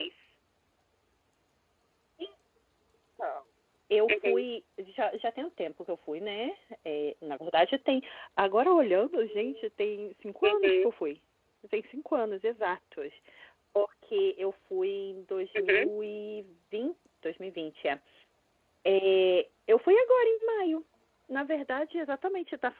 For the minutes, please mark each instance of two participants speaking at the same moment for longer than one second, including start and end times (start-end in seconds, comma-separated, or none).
none